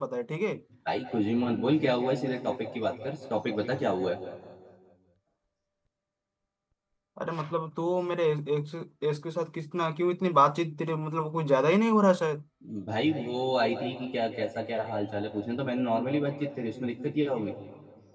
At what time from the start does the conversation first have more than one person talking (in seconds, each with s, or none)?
none